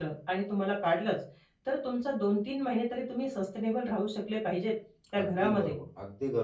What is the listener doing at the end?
taking over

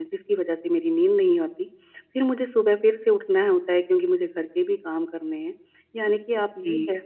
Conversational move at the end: listening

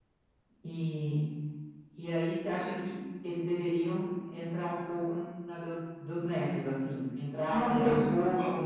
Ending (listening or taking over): taking over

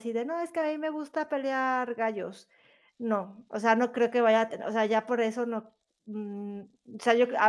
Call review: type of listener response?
taking over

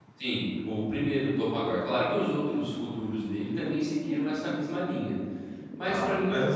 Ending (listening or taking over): taking over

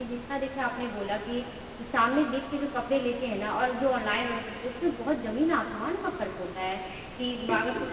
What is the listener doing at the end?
listening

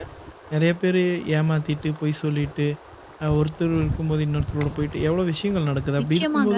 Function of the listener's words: taking over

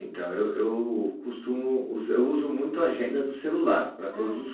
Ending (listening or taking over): taking over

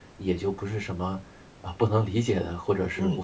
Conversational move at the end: taking over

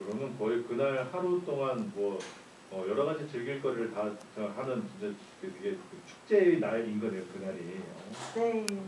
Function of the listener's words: taking over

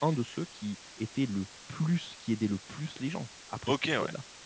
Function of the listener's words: taking over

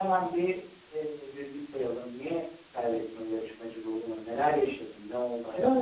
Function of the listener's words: taking over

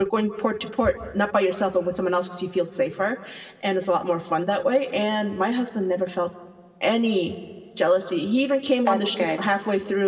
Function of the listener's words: listening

